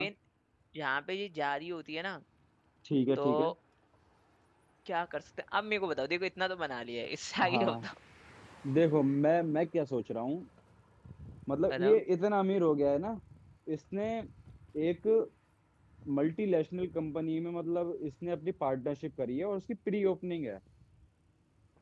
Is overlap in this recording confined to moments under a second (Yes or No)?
Yes